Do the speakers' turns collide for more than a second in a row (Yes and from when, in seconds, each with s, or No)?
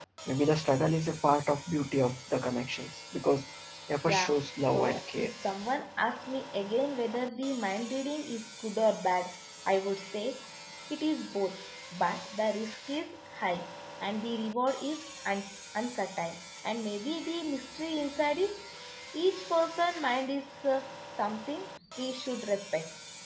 Yes, from 4.1 s